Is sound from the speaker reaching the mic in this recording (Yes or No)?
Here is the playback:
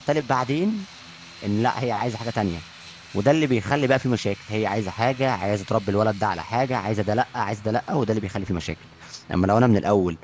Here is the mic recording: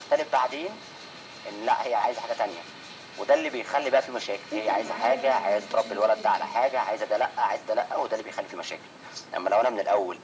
Yes